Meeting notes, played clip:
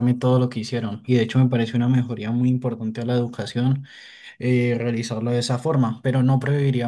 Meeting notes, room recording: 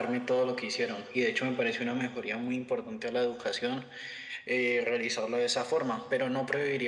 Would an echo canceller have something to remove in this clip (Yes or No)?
Yes